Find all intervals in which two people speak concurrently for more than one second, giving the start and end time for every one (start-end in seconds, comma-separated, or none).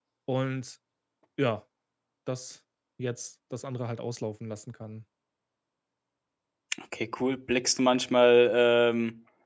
none